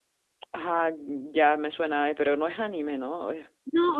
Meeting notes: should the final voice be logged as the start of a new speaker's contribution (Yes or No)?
Yes